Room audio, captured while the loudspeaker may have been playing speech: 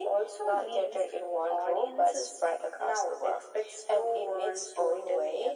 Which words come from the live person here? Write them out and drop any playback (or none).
none